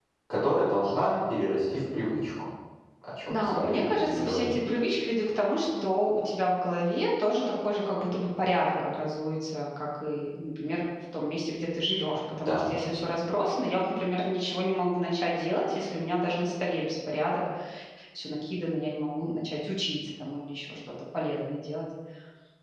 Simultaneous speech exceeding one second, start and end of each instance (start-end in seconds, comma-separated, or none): 3.3-4.6